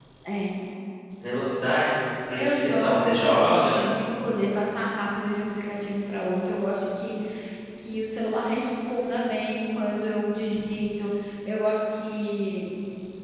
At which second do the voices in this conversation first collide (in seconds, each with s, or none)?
2.4 s